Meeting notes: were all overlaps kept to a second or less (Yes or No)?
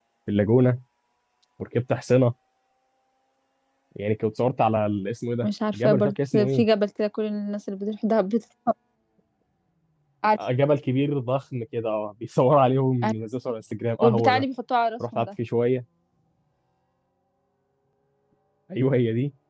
No